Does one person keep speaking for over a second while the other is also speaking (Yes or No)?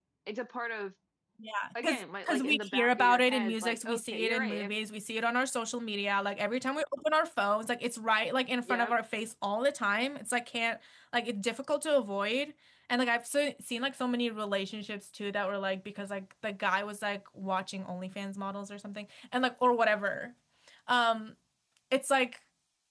Yes